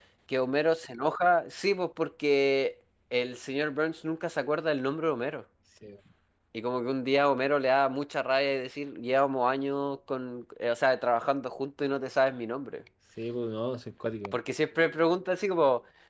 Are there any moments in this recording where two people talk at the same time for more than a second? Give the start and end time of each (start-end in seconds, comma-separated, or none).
none